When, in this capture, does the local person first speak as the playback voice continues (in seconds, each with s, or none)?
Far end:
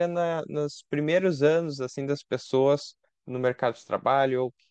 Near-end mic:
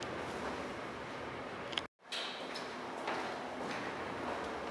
none